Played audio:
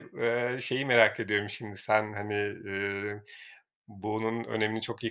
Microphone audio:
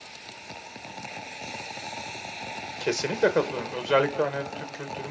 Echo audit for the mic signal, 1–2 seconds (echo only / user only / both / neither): neither